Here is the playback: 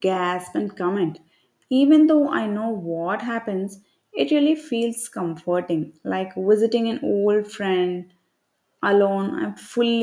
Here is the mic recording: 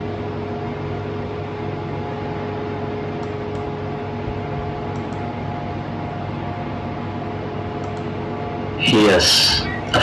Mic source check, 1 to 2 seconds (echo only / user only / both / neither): neither